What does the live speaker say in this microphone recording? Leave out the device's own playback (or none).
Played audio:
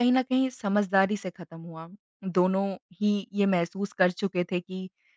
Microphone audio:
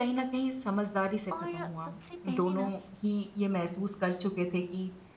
और सबसे पहले ना